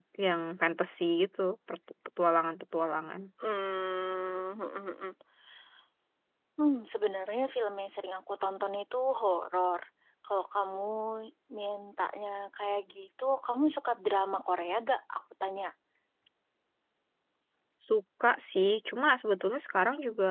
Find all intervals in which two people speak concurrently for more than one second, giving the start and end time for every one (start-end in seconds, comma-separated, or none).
none